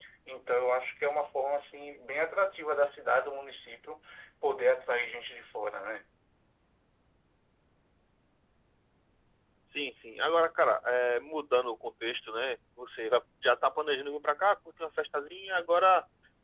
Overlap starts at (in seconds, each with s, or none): none